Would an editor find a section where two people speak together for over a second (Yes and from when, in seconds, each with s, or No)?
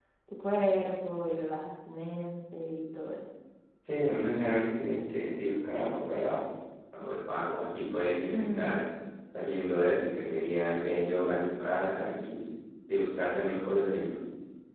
No